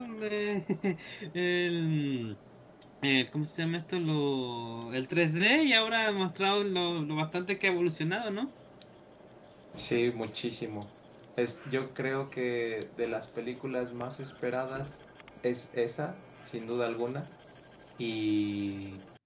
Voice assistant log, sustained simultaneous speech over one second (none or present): none